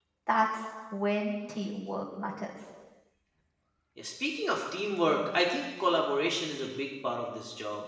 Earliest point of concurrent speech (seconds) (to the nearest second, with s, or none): none